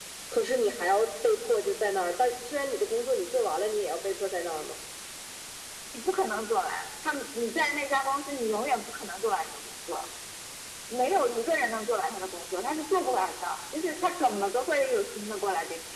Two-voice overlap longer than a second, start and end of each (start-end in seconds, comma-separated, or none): none